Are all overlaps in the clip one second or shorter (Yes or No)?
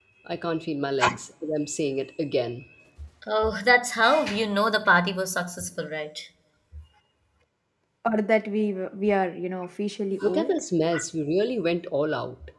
Yes